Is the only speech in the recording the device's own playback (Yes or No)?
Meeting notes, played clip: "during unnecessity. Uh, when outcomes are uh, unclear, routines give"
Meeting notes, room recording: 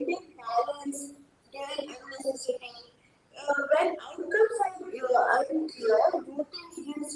Yes